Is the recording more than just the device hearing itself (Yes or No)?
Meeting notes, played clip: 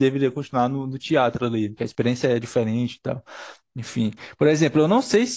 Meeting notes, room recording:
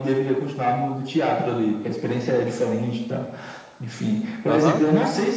Yes